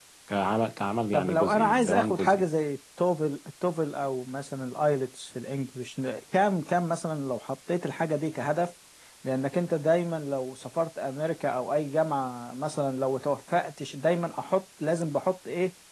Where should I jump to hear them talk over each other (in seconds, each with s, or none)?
1.1 s